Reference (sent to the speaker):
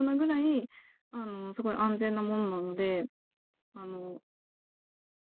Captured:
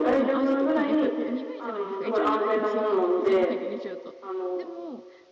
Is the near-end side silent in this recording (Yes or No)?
No